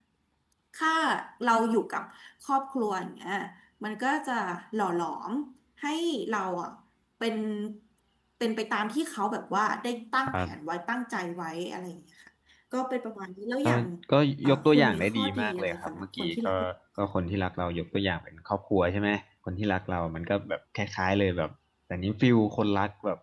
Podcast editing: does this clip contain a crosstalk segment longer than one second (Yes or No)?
Yes